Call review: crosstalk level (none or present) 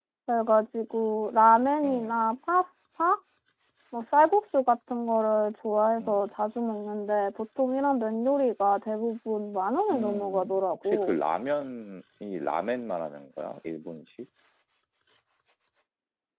present